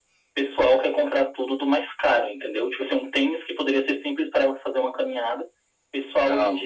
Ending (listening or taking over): listening